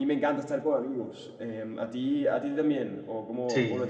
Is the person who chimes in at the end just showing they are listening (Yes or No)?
No